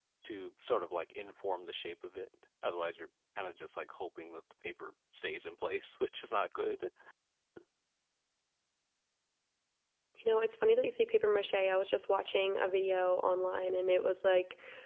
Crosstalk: none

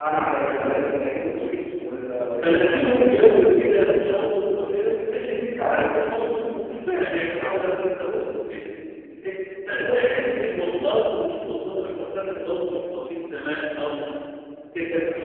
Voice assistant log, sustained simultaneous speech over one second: present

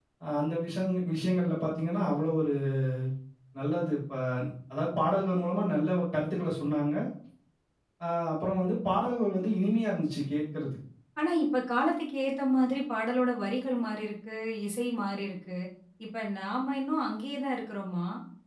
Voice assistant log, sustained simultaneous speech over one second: none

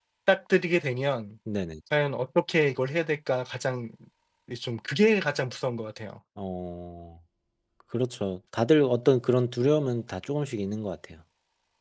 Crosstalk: none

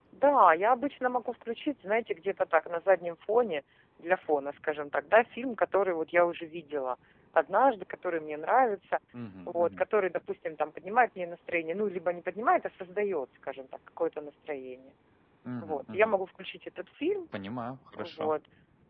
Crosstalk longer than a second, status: none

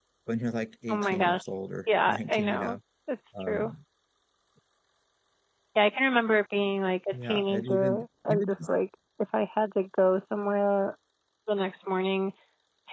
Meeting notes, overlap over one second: present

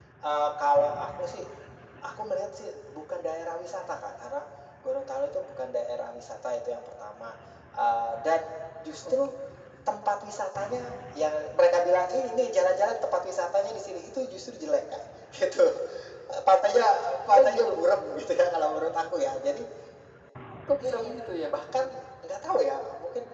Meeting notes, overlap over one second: none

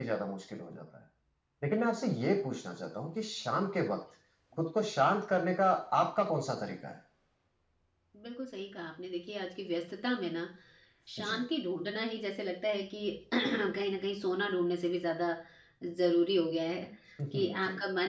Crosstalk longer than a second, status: none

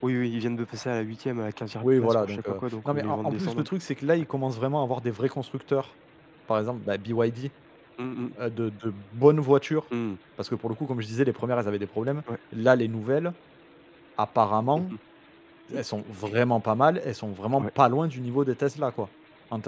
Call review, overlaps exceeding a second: present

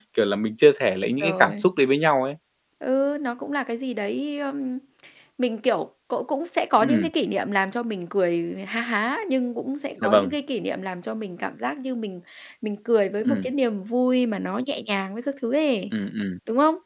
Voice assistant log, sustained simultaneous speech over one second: none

